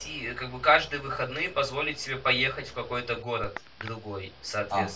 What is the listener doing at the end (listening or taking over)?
taking over